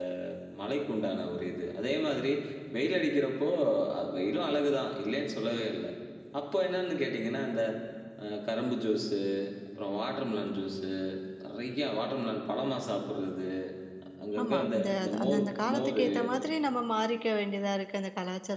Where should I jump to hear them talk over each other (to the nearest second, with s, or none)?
14 s